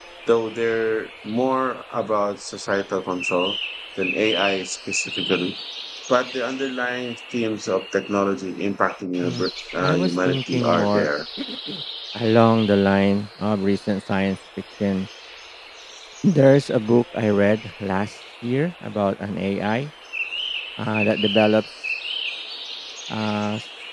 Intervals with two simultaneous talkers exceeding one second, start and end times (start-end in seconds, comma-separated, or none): 9.8-11.1